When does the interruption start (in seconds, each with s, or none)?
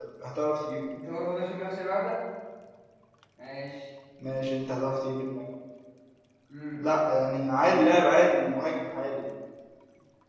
none